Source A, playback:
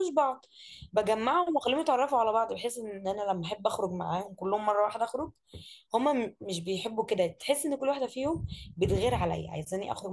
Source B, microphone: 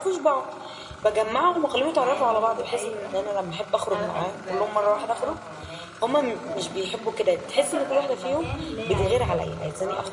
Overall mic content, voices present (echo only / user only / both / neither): both